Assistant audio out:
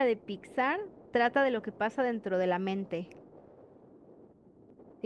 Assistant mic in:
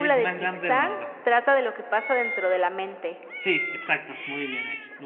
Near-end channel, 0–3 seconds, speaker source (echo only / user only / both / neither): both